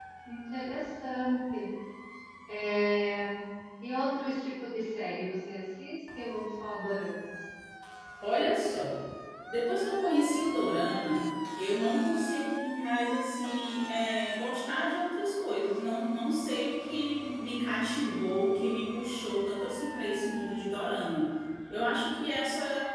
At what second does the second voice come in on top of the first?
none

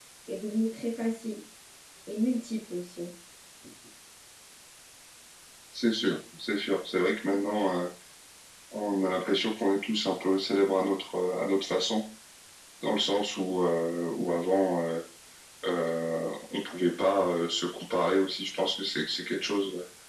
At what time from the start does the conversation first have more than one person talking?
none

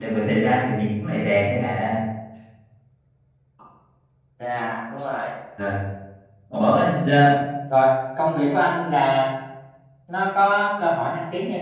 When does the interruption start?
none

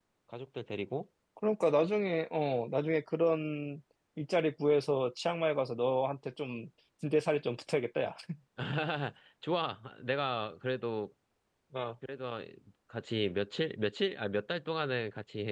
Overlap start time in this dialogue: none

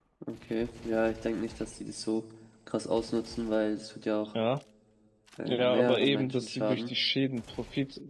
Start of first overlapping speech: 5 s

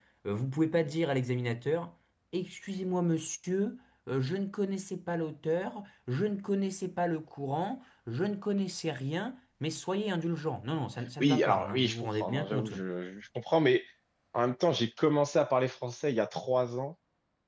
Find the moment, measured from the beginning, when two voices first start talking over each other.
11 s

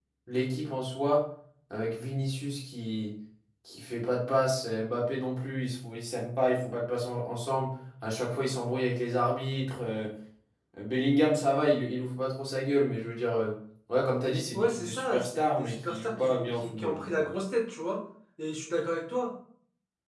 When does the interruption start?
15 s

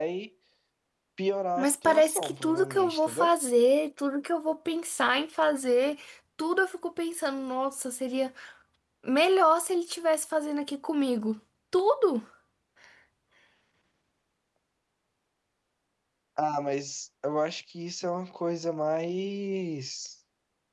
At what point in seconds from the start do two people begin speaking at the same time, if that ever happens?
2 s

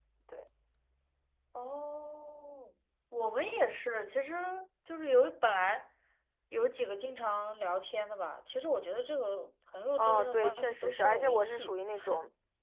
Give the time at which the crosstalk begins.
10 s

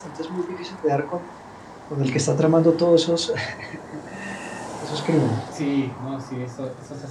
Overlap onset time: none

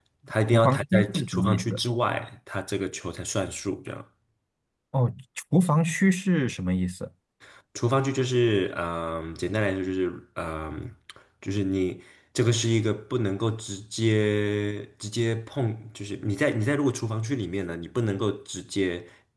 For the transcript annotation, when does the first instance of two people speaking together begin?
1 s

